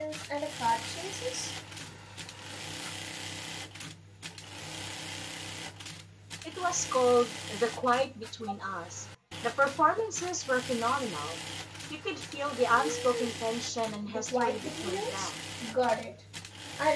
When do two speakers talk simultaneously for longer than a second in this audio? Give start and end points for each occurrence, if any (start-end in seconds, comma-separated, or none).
14.1-15.3